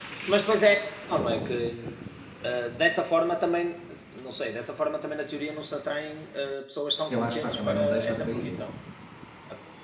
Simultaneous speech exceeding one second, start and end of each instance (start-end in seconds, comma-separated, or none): 7.1-8.5